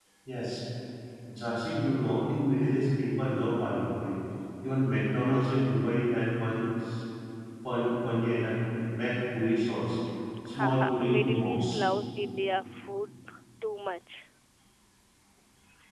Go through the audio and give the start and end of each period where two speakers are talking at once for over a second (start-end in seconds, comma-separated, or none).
10.6-11.8